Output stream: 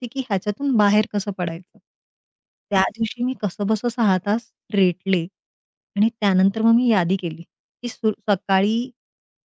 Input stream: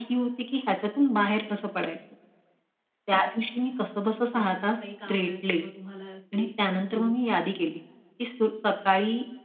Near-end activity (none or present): present